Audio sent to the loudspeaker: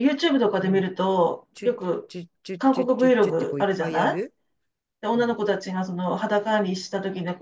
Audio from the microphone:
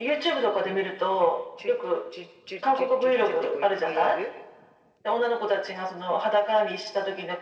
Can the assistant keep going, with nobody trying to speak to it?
Yes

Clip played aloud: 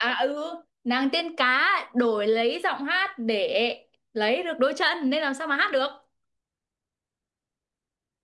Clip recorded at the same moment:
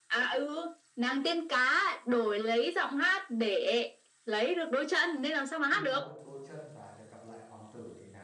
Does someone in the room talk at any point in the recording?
Yes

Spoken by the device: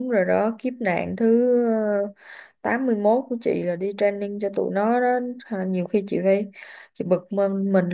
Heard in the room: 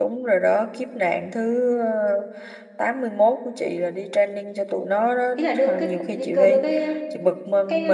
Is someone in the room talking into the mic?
Yes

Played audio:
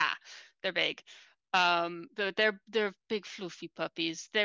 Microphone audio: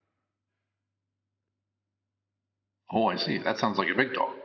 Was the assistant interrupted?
Yes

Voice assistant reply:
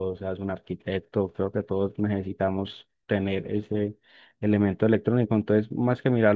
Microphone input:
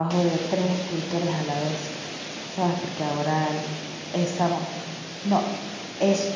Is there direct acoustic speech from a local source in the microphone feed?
Yes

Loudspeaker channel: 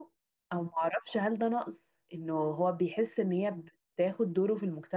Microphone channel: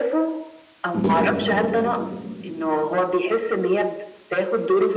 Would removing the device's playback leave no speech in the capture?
No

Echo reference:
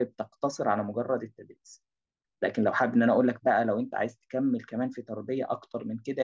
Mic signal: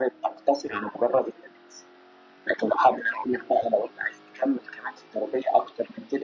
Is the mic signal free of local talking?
Yes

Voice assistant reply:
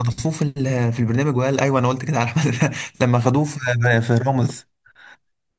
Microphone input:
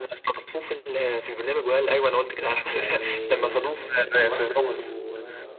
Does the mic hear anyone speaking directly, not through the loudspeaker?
Yes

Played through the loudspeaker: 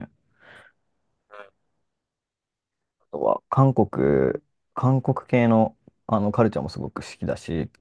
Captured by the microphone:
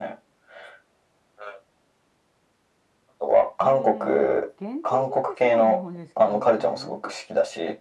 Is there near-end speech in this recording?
Yes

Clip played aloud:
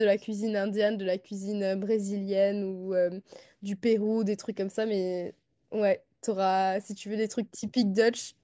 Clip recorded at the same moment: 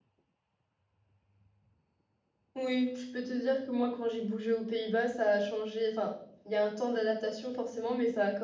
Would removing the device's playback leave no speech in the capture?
No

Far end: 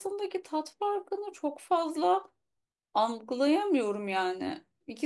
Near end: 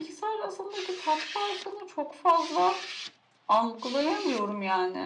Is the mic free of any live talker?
Yes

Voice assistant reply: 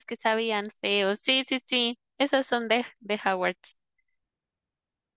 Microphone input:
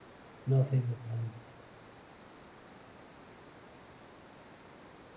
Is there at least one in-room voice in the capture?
Yes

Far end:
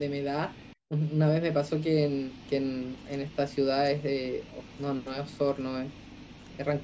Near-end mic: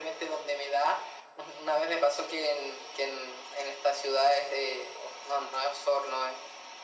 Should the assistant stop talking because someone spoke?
No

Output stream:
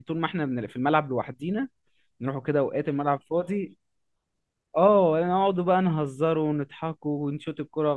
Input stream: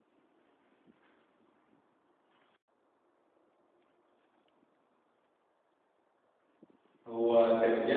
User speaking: Yes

